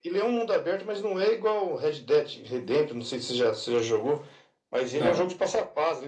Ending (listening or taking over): listening